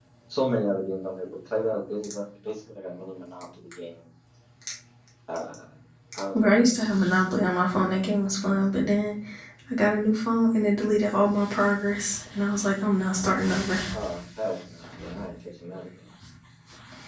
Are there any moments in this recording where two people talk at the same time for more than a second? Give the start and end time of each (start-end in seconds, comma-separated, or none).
none